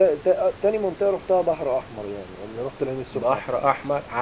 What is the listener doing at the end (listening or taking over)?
taking over